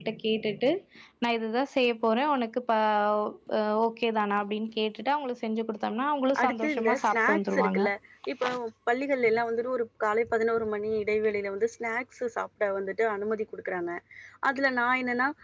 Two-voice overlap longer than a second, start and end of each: 6.4-7.8

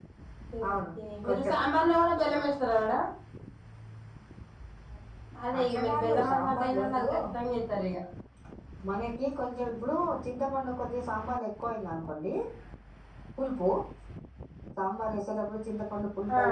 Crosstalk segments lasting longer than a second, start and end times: 5.6-7.1

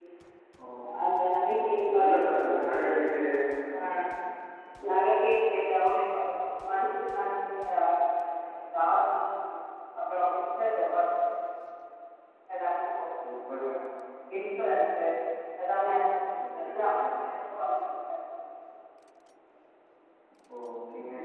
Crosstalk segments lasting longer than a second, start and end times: 2.0-3.2

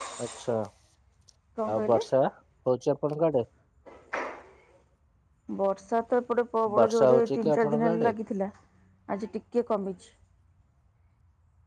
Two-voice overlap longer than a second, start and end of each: 6.8-8.1

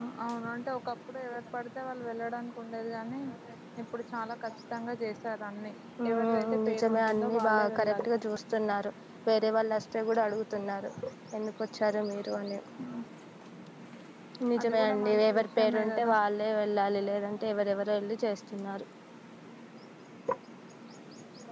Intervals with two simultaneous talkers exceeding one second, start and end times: 6.1-8.1, 14.6-16.1

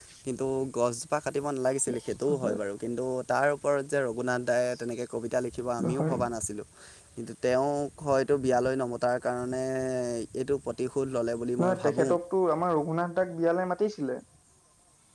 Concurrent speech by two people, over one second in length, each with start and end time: none

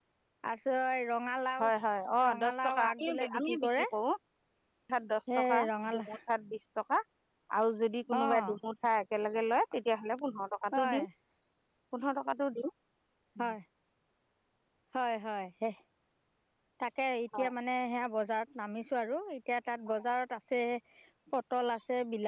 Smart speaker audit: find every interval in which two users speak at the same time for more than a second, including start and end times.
2.3-3.8

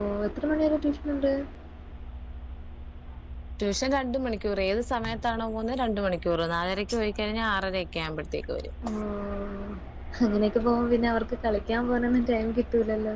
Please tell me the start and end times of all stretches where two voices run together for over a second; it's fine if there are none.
none

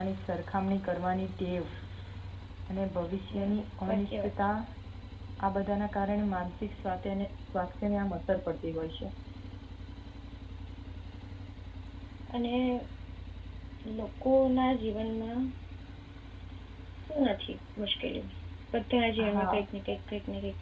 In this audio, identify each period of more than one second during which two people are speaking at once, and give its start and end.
3.3-4.5

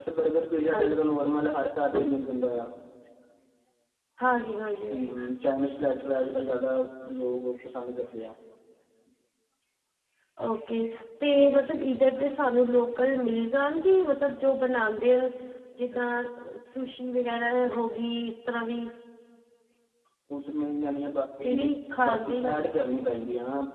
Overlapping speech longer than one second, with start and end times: 21.4-22.6

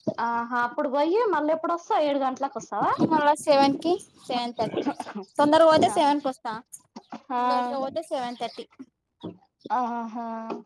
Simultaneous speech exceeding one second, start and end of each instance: none

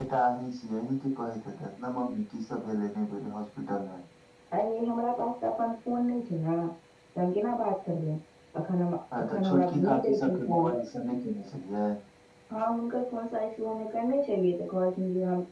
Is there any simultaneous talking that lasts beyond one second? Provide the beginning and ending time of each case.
9.2-10.7

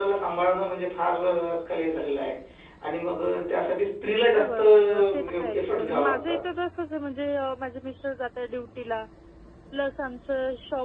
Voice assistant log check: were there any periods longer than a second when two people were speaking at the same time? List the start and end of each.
4.4-6.4

